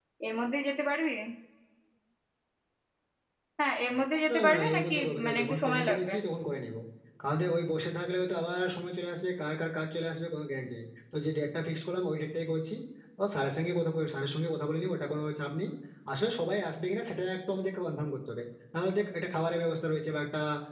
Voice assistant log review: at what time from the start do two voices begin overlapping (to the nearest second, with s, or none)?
4 s